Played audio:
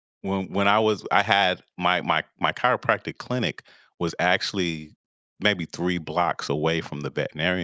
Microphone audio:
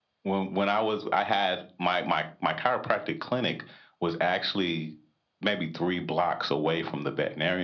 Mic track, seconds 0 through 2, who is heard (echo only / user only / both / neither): echo only